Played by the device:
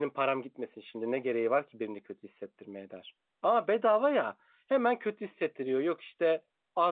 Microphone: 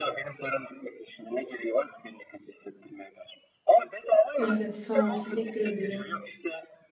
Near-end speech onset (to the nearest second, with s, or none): 4 s